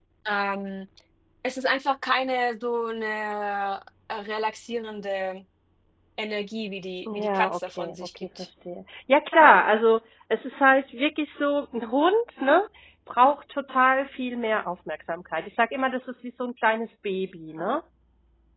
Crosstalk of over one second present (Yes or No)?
Yes